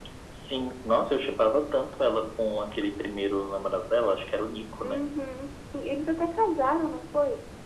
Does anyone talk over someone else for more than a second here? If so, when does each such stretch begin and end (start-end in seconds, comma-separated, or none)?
none